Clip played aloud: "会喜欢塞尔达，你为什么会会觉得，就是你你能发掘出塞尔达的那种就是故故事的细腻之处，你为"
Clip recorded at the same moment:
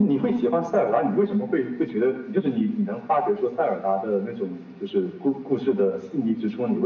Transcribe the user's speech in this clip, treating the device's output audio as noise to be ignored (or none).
none